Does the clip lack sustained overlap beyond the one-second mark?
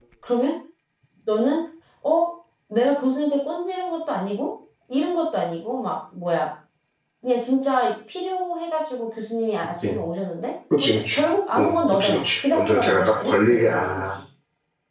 No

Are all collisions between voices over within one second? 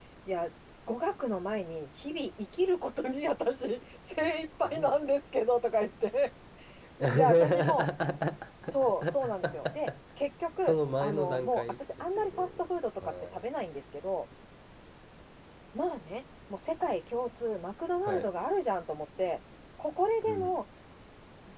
No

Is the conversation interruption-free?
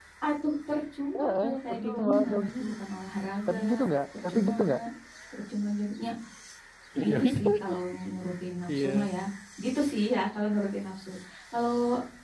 No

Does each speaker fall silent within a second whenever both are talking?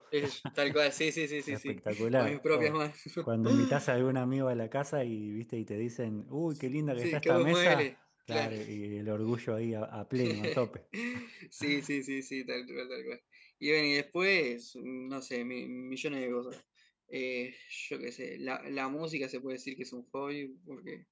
No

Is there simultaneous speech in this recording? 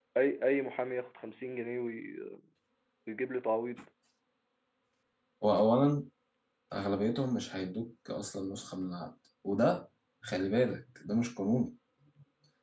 No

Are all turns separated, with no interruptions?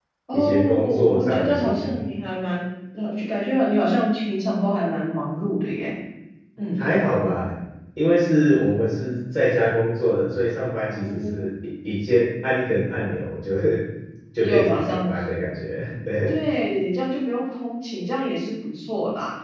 No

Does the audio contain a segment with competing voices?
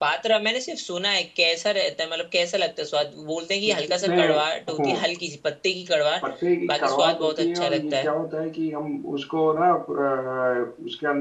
Yes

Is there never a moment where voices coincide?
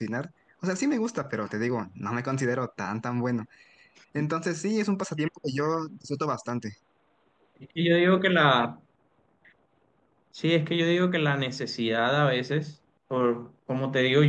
Yes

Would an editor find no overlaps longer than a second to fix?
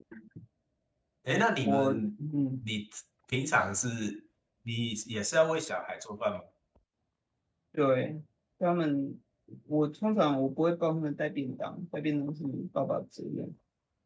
Yes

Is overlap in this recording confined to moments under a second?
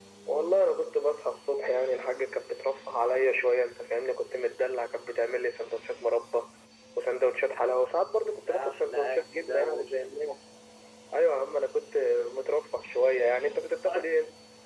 No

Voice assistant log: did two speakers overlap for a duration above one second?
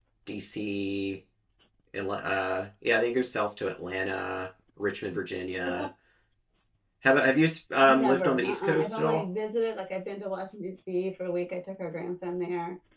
Yes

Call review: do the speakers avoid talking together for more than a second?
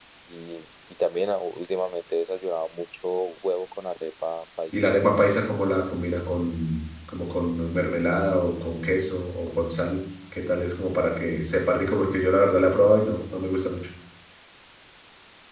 Yes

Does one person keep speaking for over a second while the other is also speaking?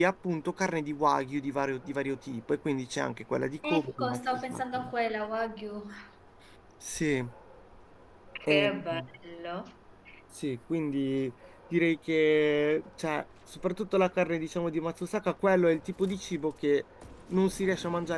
Yes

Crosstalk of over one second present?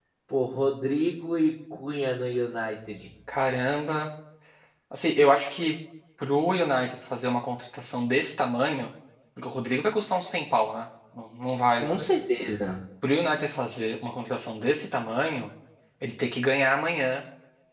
No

